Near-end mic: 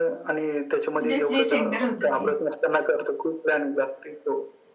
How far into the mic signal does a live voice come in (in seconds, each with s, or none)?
1.0 s